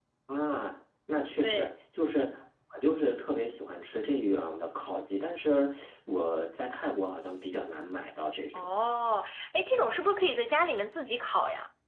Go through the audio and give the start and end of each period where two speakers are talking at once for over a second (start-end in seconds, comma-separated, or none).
none